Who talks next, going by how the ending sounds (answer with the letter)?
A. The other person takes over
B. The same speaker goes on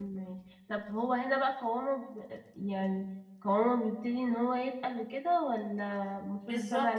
A